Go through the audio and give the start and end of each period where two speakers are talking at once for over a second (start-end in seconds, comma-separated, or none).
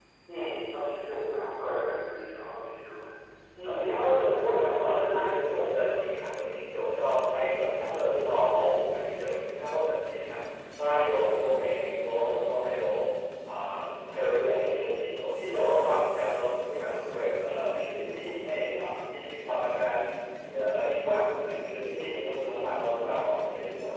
3.6-6.2